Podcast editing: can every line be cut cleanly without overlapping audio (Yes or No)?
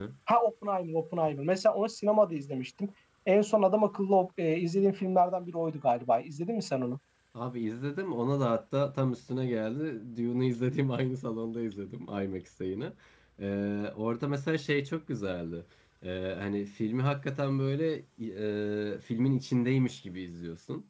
Yes